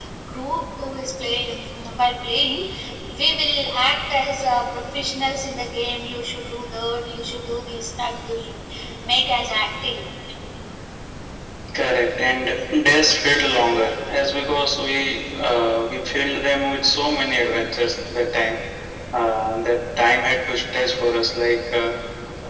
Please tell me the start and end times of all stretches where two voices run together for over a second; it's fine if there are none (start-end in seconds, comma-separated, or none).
none